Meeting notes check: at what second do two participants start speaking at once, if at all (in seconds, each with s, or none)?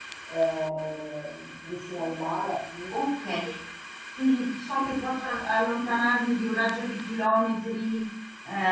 none